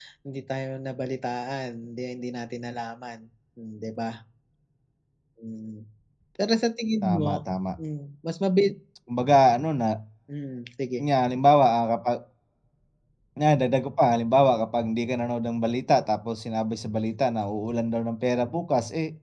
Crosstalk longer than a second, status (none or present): none